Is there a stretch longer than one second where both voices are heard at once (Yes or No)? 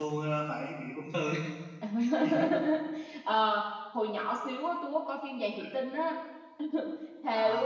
No